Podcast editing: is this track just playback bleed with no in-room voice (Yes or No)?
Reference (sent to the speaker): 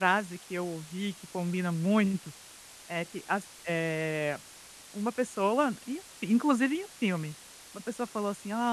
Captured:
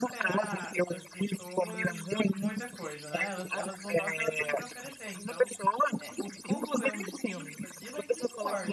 No